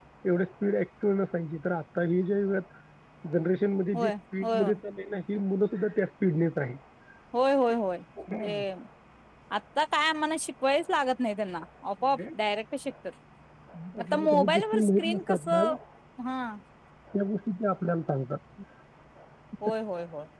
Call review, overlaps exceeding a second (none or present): present